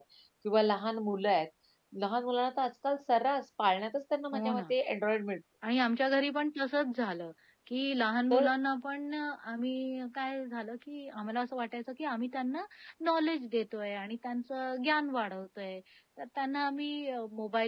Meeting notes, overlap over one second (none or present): none